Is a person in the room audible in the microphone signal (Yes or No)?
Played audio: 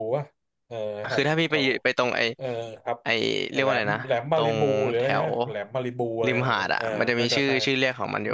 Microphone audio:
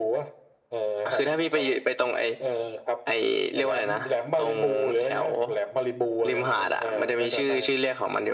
No